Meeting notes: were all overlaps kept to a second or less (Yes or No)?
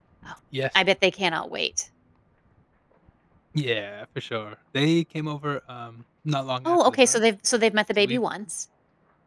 Yes